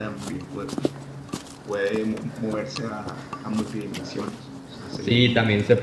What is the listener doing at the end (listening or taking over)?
taking over